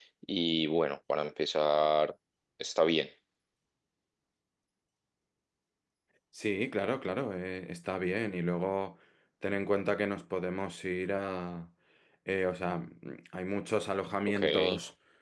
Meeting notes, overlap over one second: none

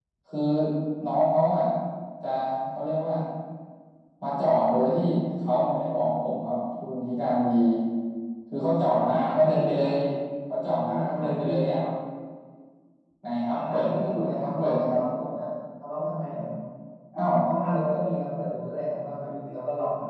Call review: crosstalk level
present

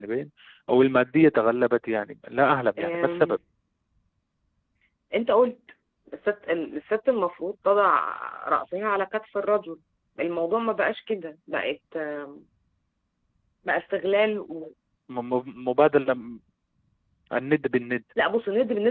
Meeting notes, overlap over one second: none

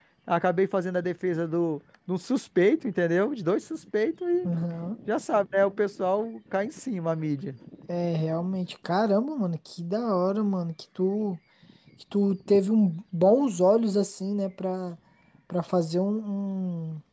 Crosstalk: none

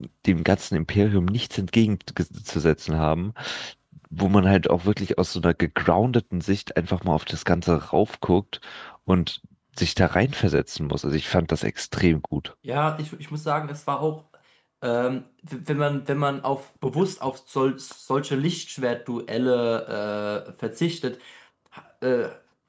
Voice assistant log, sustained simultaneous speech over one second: none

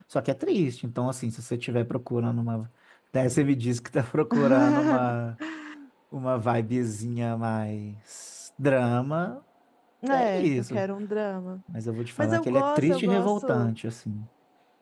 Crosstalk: present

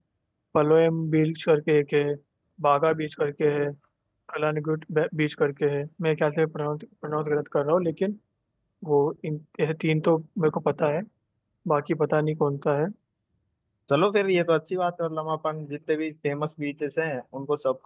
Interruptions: none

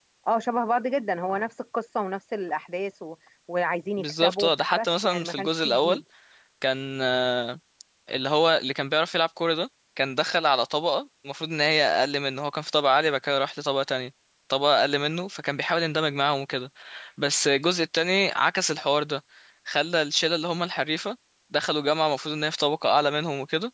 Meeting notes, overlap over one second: present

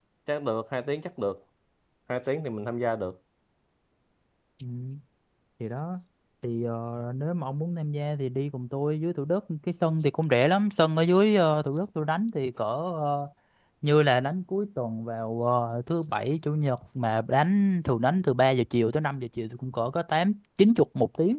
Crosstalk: none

